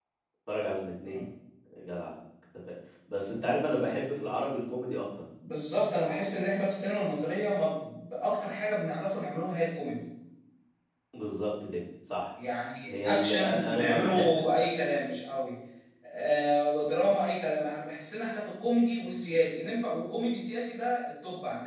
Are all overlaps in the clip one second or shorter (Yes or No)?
No